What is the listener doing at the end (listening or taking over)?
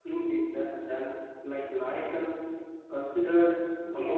listening